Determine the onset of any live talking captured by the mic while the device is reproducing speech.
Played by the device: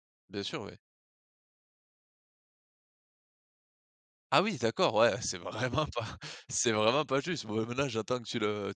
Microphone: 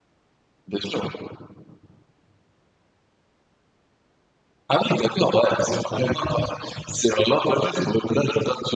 none

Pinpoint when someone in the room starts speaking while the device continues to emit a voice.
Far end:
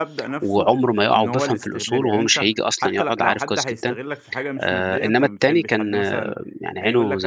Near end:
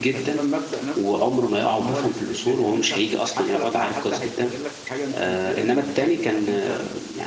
none

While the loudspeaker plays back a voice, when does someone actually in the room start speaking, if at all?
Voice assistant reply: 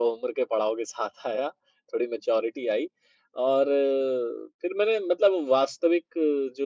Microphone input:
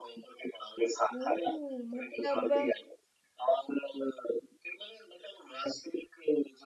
1.1 s

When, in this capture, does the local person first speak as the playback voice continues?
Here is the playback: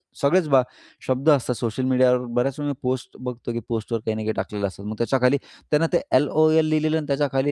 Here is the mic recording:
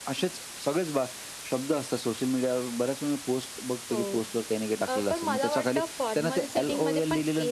3.9 s

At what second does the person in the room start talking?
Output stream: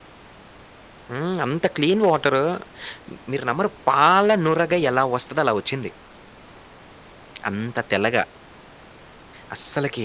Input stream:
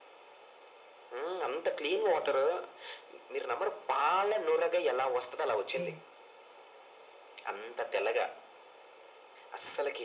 5.5 s

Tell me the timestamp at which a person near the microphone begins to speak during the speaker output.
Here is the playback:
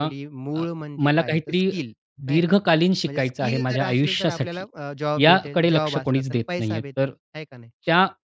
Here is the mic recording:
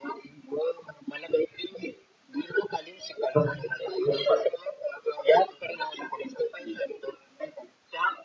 3.3 s

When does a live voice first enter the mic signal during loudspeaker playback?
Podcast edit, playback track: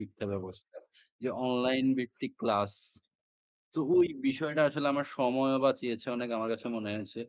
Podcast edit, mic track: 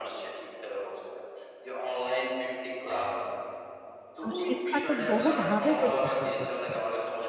4.2 s

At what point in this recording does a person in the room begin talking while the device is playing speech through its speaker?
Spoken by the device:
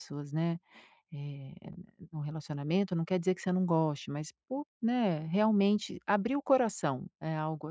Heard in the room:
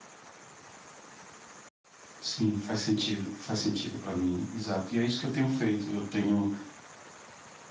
2.2 s

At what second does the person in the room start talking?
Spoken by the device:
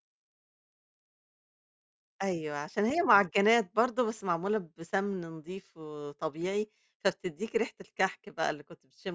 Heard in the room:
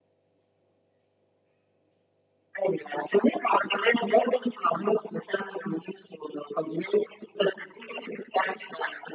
none

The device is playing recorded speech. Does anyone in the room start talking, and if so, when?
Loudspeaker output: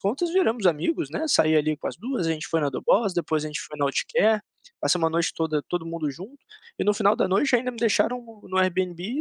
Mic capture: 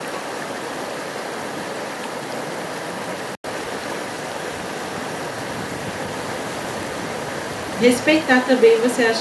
7.8 s

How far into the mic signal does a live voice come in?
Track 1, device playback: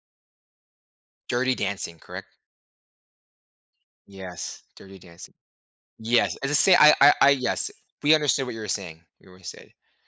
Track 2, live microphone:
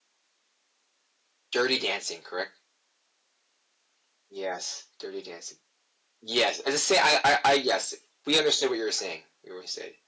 none

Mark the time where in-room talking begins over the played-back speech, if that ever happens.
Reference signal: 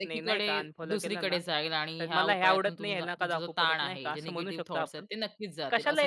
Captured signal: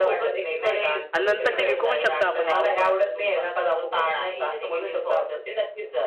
1.1 s

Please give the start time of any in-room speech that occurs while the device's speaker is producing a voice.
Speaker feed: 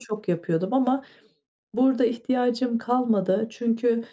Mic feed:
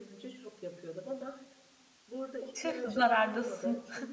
2.5 s

